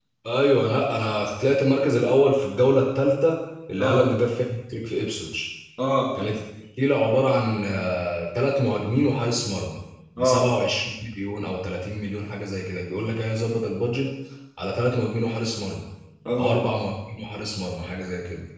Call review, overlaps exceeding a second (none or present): none